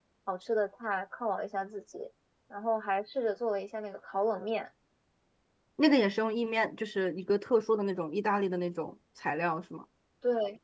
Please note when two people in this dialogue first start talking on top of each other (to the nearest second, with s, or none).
none